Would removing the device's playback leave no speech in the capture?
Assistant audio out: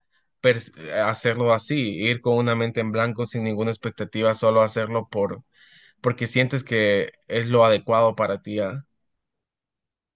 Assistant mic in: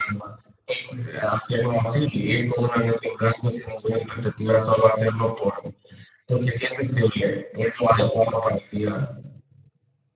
Yes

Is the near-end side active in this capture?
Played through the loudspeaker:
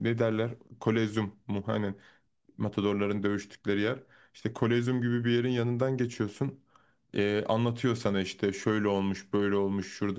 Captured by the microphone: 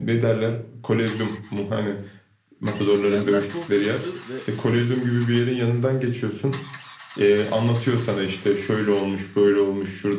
Yes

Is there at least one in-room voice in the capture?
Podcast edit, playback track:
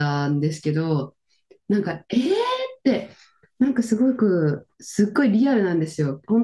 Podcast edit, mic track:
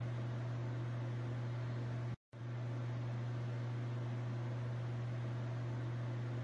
No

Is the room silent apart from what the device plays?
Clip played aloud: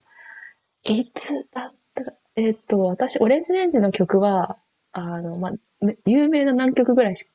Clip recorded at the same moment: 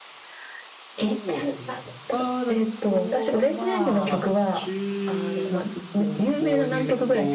No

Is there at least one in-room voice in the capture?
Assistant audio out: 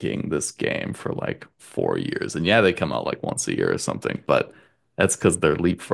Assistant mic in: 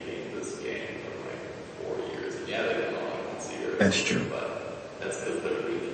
Yes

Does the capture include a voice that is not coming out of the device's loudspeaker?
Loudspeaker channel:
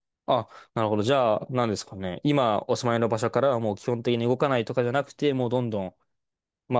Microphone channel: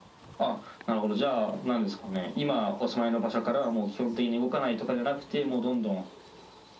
No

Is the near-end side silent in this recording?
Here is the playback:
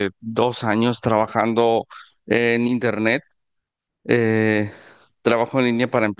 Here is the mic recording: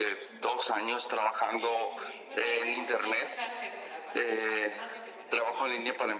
No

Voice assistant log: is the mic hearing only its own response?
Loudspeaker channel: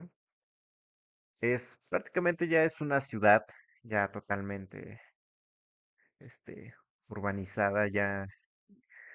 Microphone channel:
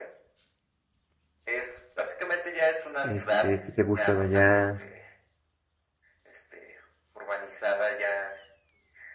No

